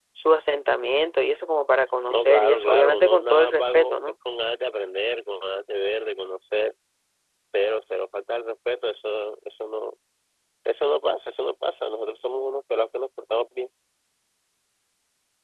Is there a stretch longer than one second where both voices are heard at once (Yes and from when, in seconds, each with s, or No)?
Yes, from 2.1 s